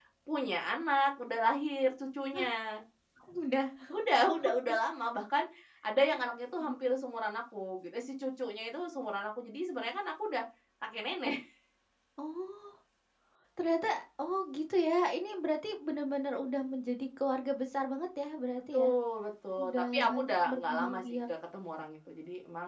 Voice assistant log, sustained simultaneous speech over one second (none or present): present